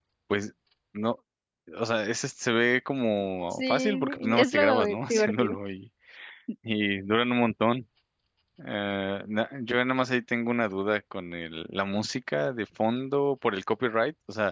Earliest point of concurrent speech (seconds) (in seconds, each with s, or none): 3.5 s